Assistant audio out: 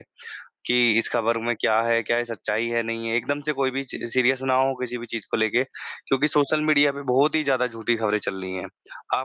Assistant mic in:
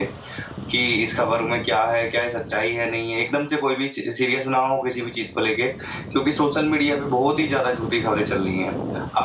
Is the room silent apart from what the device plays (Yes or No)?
Yes